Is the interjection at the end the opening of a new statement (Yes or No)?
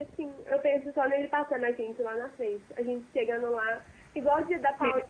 No